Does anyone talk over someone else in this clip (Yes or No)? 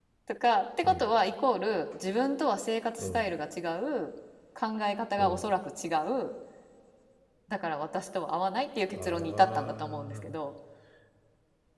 Yes